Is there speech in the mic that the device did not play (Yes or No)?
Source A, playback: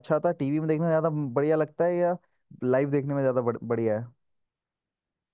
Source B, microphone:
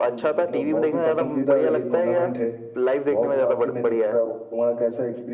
Yes